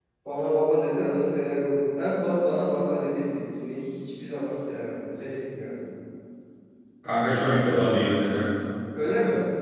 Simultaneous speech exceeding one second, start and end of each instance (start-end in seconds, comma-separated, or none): none